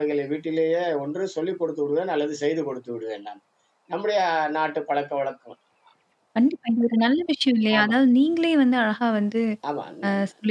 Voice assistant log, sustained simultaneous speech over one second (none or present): none